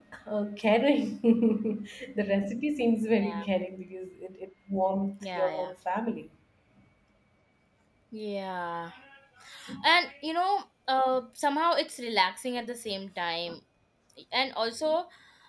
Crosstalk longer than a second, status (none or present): none